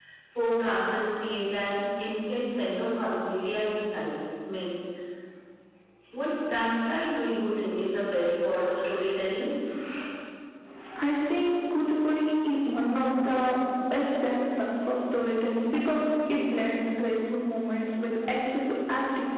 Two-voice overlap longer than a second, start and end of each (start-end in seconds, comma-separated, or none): none